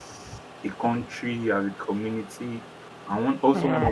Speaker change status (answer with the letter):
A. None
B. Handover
A